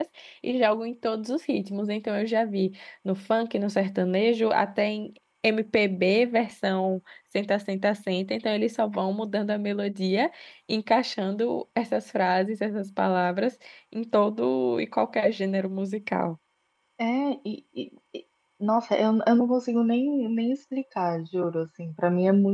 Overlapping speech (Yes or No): No